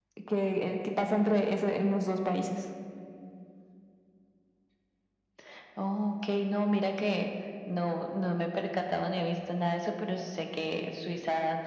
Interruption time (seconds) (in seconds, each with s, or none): none